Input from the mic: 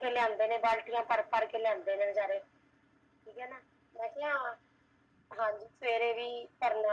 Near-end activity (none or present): none